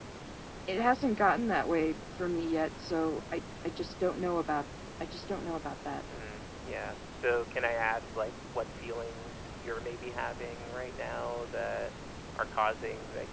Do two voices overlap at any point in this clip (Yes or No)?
No